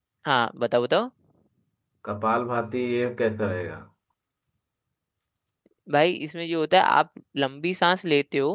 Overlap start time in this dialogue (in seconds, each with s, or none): none